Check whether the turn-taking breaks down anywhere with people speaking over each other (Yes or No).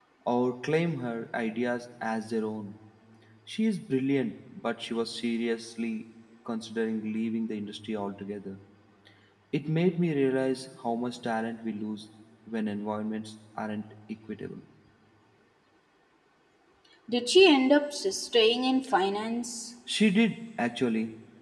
No